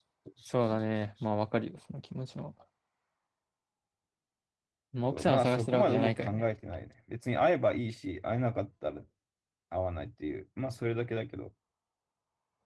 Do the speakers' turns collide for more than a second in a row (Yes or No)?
Yes